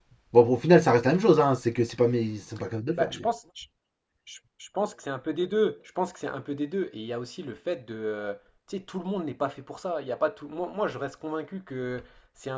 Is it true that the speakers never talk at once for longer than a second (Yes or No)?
Yes